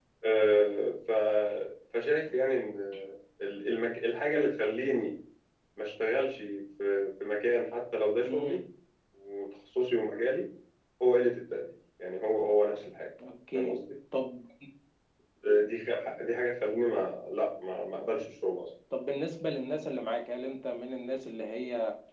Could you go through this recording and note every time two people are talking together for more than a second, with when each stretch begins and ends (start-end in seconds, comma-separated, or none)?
none